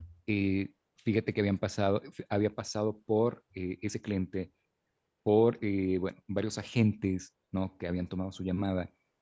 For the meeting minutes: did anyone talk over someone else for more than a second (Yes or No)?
No